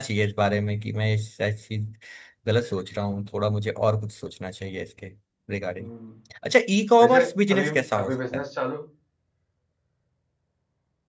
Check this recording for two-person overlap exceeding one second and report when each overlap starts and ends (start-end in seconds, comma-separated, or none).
7.0-8.4